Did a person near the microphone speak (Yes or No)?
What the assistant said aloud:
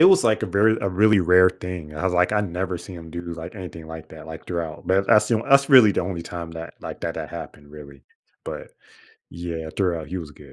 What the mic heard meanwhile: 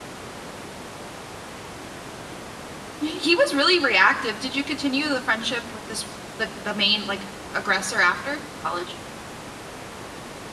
Yes